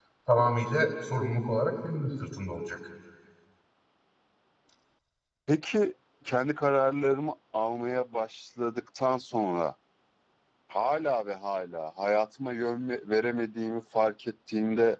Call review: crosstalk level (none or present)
none